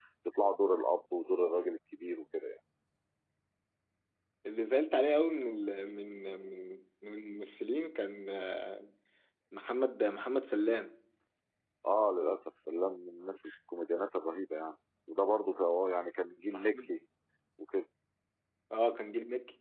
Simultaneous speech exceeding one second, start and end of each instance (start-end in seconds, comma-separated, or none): none